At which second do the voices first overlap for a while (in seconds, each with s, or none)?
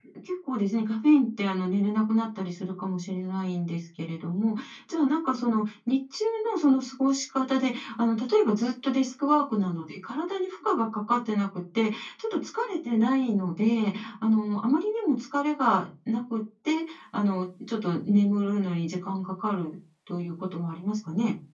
none